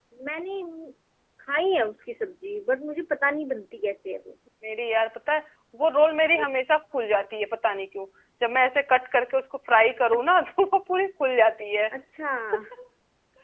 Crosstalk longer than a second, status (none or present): none